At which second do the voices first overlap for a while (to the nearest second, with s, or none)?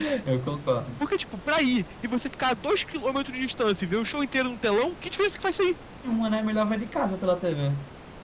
none